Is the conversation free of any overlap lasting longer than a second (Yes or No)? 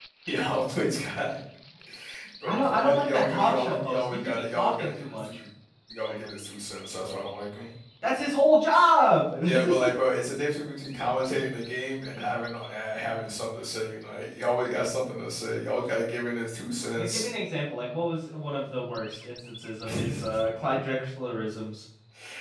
No